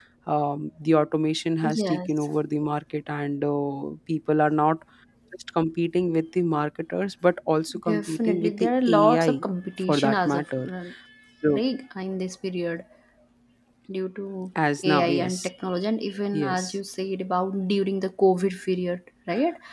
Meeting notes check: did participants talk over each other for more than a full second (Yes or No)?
Yes